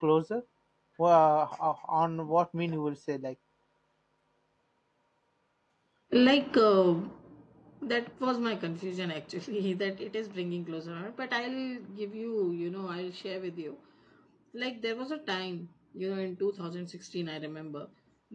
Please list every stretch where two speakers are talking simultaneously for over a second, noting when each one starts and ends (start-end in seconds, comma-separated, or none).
none